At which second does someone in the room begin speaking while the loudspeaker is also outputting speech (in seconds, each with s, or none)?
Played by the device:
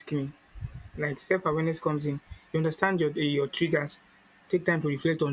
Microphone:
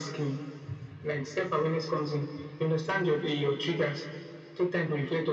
none